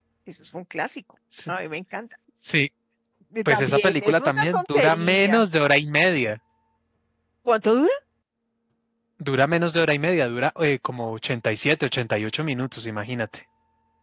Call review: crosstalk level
present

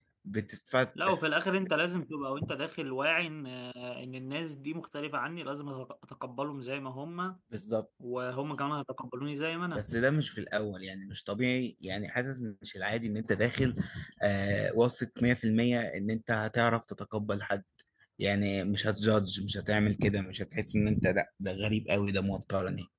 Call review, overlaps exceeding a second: none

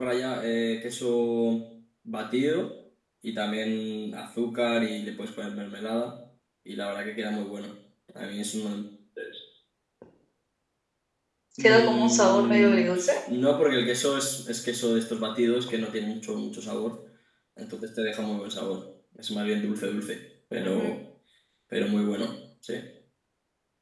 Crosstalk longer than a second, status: present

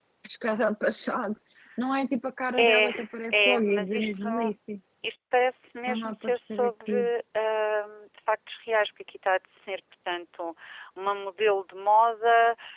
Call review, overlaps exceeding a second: present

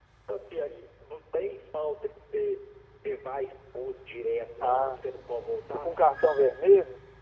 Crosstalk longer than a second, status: none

